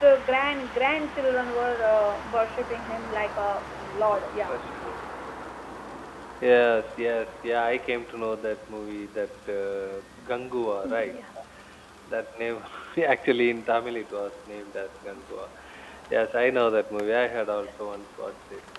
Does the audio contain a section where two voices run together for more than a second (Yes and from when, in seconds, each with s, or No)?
No